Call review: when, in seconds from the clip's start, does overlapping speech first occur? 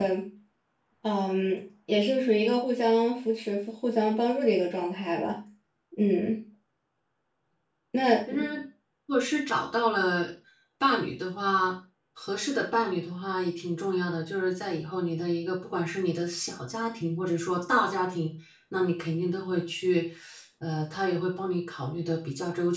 none

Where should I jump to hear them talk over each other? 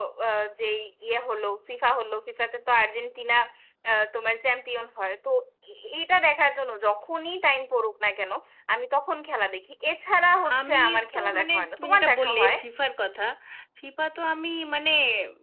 10.4 s

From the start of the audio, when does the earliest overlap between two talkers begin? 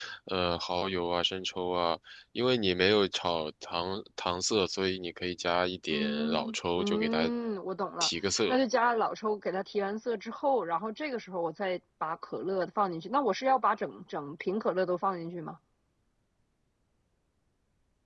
5.9 s

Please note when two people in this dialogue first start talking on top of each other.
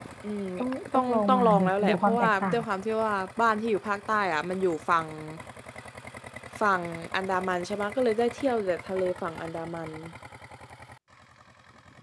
0.9 s

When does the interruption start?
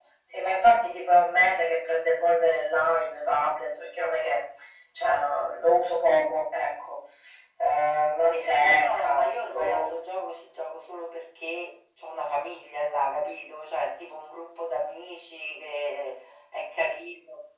8.6 s

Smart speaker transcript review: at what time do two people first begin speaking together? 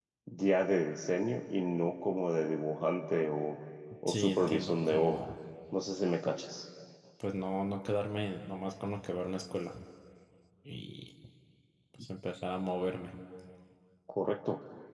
4.1 s

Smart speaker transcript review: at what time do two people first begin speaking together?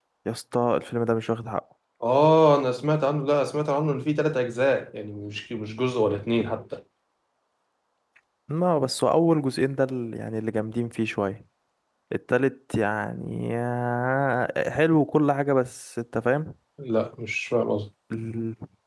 none

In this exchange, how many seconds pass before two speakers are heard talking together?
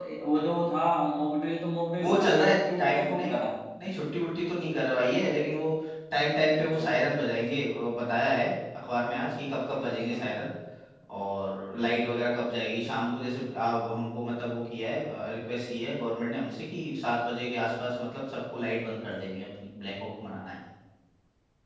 2.0 s

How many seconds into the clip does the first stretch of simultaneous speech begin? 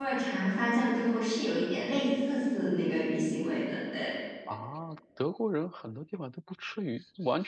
none

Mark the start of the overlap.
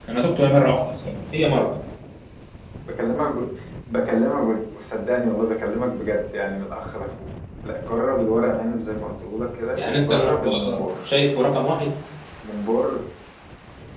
9.8 s

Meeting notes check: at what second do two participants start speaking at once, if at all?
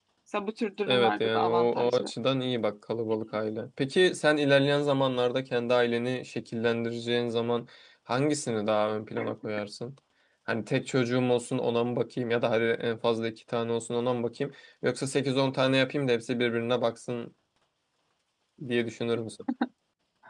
0.9 s

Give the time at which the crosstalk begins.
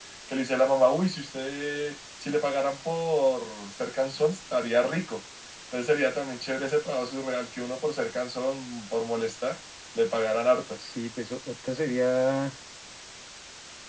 none

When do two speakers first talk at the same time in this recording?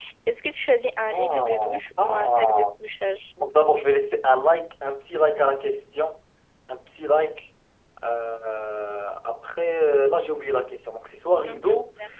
1.1 s

